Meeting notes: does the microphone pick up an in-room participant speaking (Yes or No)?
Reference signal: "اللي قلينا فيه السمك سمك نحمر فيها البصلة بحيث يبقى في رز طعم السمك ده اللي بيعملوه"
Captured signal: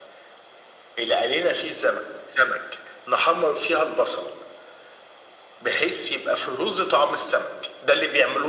No